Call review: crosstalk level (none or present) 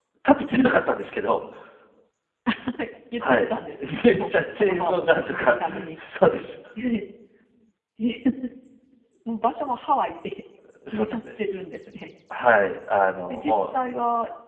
present